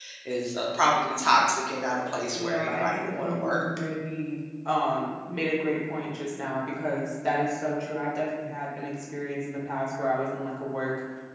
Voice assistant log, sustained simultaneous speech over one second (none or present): present